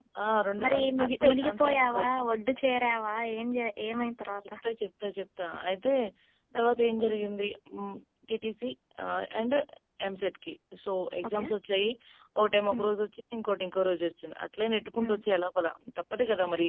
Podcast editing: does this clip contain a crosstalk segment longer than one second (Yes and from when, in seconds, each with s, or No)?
Yes, from 0.6 s